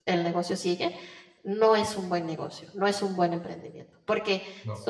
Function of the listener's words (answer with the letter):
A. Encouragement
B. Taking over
A